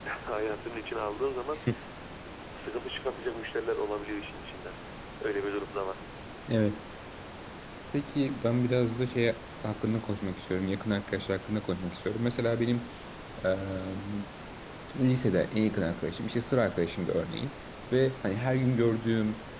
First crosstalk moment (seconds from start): none

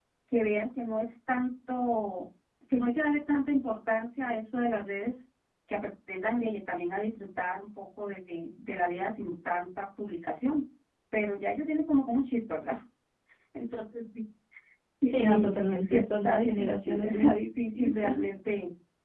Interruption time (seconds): 15 s

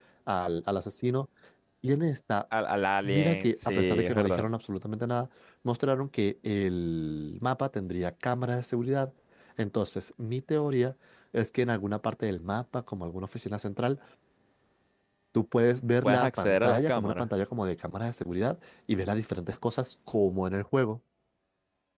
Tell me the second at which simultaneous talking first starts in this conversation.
3 s

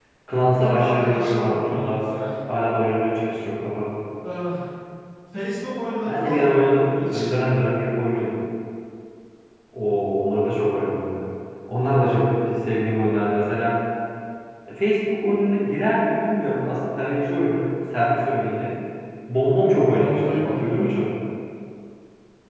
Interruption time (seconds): 1 s

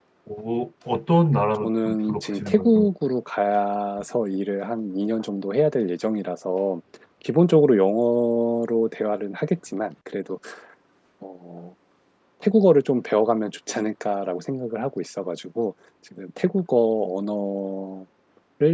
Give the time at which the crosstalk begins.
2 s

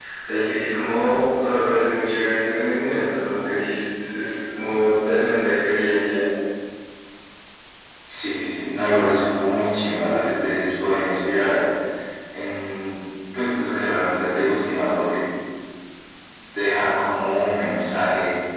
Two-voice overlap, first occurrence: none

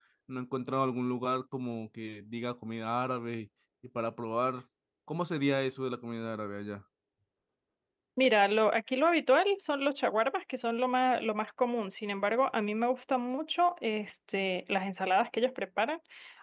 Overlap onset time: none

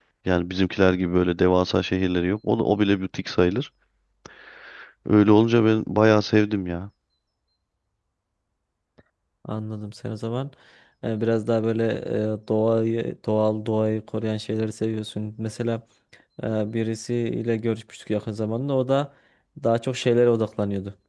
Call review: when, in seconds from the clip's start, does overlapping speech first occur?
none

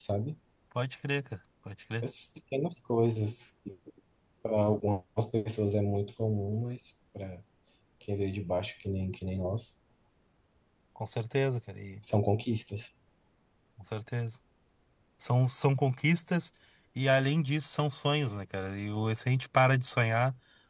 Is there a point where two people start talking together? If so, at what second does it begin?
none

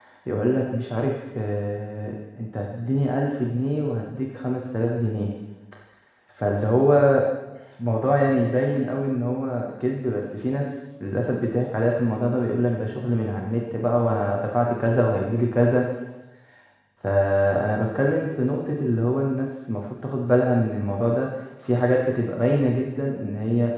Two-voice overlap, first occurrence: none

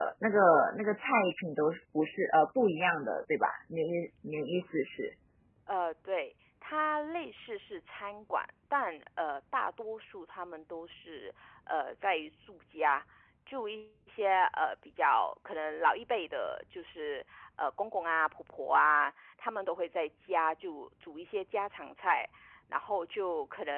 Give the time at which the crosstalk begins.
none

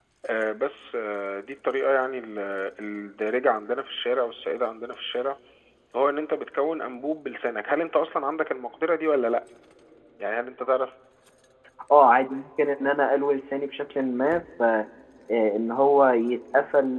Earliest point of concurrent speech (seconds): none

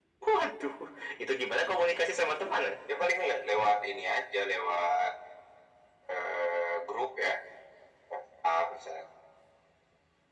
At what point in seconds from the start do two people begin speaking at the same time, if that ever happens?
none

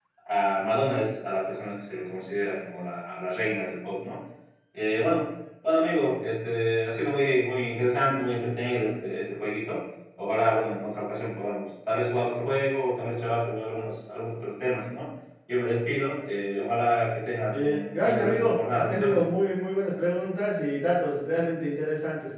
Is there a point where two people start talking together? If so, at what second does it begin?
18 s

